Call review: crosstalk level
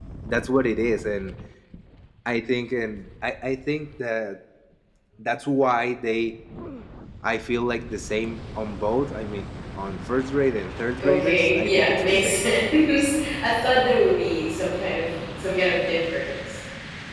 present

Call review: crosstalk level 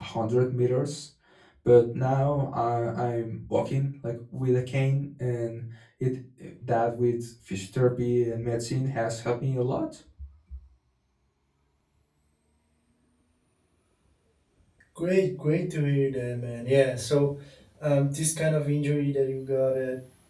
none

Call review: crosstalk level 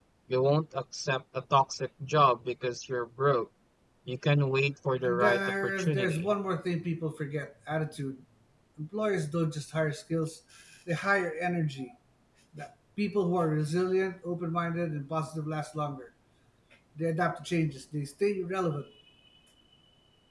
present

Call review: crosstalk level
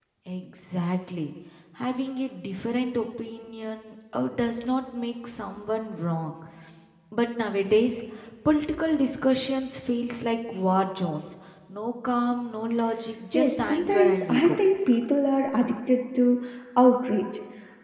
present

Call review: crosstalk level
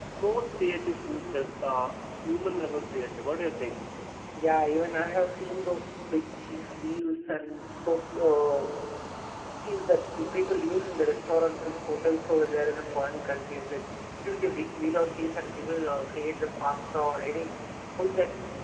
none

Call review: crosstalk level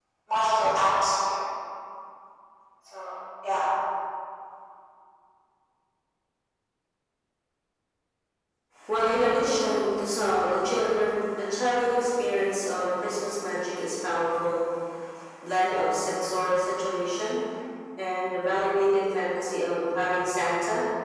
none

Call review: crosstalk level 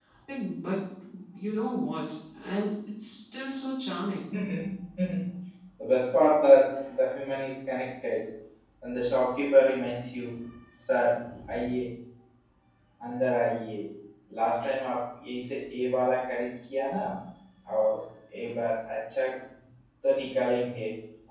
none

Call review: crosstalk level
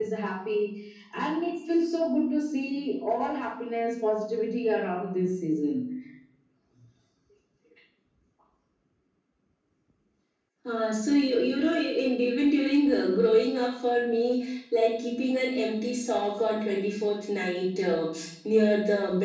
none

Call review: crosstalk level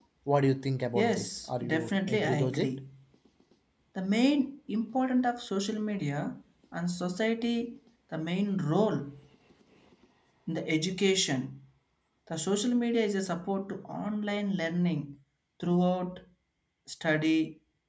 present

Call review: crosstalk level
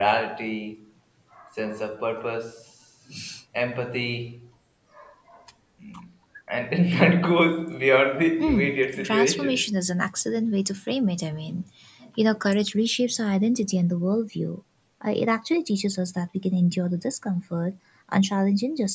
present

